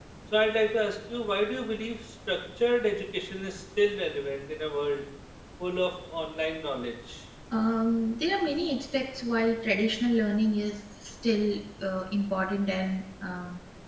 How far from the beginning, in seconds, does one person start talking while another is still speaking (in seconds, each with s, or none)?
none